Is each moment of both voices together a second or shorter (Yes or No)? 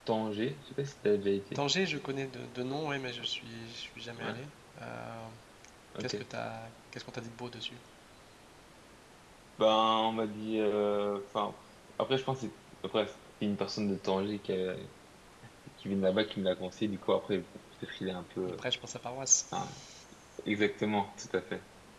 Yes